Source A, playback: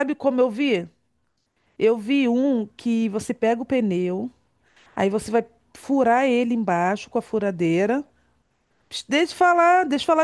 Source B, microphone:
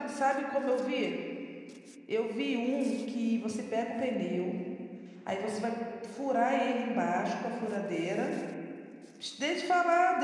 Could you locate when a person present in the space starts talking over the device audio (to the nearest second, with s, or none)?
none